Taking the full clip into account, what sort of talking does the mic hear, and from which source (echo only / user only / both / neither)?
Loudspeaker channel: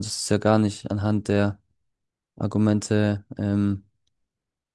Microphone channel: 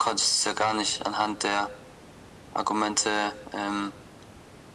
echo only